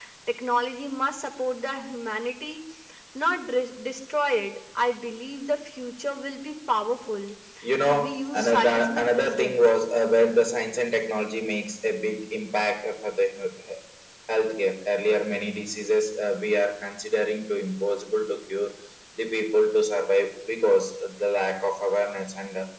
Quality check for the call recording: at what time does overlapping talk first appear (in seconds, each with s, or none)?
7.8 s